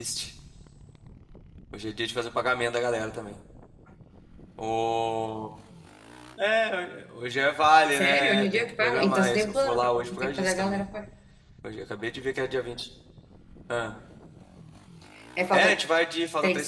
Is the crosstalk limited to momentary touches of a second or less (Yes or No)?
No